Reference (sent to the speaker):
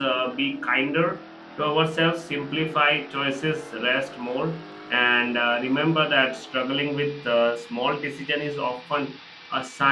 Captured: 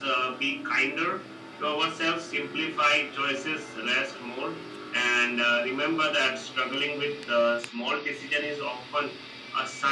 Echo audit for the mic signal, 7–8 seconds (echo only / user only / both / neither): echo only